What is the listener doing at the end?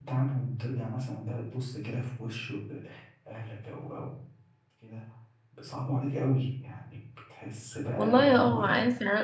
taking over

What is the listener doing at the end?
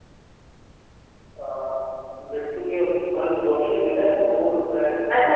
taking over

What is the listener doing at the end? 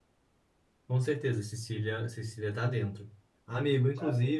listening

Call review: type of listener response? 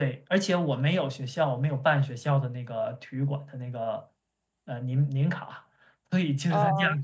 listening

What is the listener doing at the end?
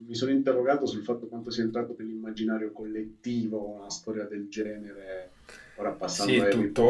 taking over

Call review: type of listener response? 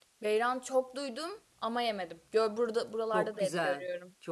taking over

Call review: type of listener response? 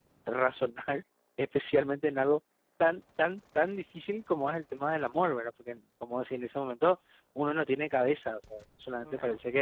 listening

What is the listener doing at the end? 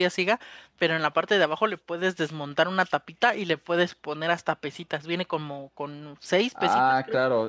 taking over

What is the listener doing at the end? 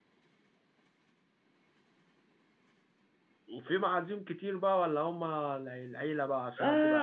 taking over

